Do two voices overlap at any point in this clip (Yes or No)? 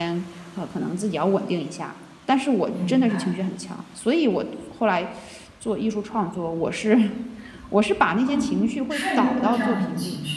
Yes